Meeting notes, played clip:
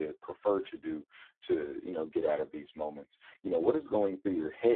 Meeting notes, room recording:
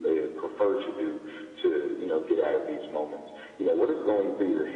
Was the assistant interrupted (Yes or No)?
No